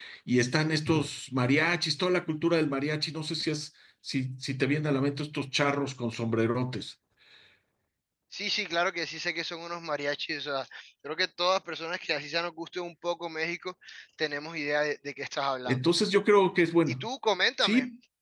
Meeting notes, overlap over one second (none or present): none